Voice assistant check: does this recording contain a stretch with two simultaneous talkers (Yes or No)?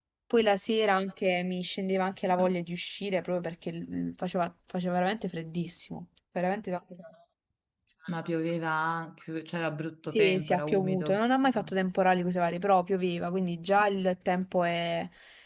Yes